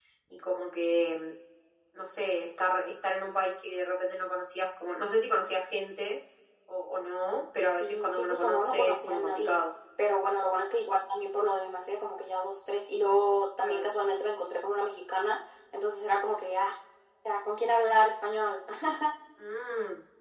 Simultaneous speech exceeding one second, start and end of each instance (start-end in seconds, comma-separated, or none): 7.8-9.6